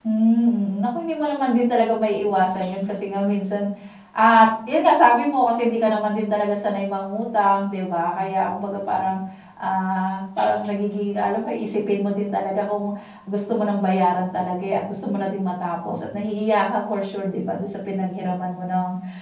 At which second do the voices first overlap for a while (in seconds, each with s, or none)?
none